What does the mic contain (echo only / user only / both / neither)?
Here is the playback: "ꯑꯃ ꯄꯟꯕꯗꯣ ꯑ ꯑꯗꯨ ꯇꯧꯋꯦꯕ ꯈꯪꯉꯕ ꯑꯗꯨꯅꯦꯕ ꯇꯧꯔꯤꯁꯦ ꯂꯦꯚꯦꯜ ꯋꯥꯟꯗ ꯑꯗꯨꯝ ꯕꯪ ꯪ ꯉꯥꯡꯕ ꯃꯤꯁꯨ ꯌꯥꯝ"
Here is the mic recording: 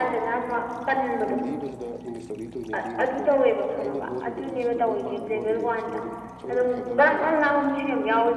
both